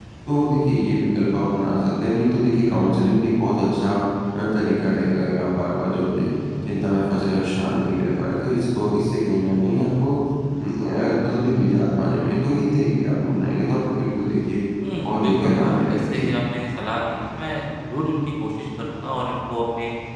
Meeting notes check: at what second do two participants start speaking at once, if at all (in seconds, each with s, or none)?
15.0 s